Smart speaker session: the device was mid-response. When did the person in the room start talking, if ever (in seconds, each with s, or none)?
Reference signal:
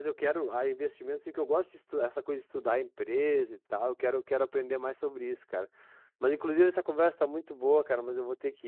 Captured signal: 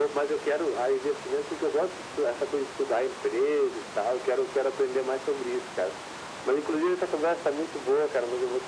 none